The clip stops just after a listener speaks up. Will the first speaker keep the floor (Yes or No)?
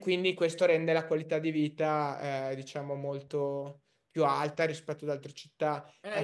No